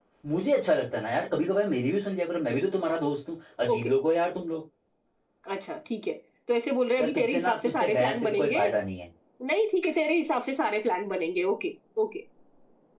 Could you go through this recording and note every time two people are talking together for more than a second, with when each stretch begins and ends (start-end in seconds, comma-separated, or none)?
7.0-8.6